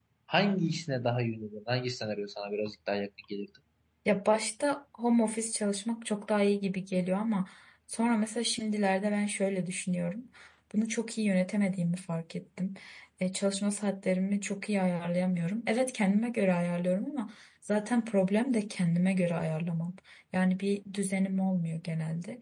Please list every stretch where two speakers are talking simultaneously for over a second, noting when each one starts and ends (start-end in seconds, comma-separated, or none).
none